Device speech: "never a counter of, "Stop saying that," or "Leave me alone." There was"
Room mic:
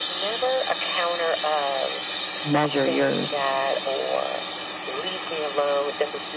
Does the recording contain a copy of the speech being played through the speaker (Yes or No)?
Yes